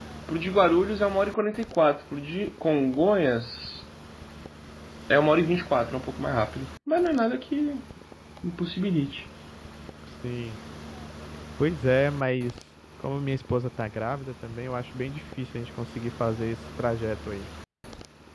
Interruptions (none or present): none